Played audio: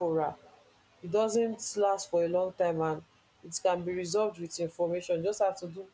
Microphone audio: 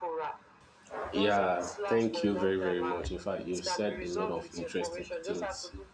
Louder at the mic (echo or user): user